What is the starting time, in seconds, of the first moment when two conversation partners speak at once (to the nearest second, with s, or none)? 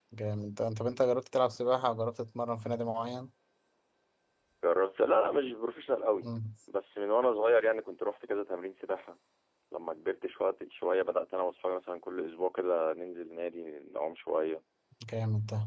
none